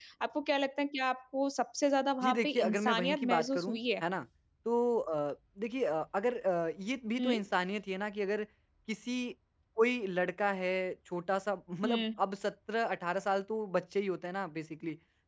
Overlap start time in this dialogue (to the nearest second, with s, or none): 2 s